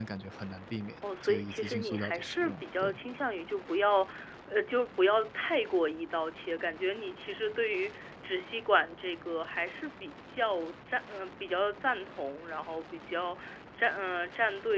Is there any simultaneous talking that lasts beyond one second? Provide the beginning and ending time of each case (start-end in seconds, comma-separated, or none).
1.2-3.0